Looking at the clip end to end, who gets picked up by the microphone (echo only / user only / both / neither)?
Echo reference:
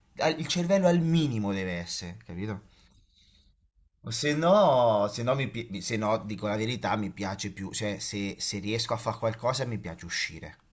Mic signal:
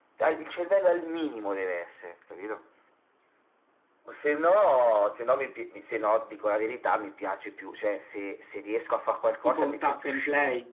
both